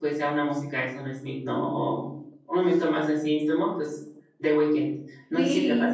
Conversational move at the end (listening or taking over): taking over